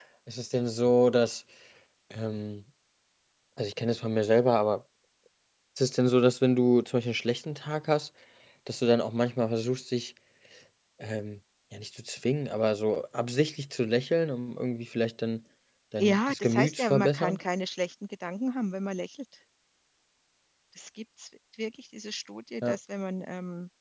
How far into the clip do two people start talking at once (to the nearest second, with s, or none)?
16 s